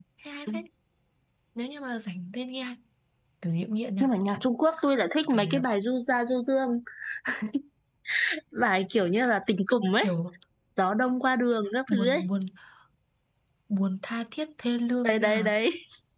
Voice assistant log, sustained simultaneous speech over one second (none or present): none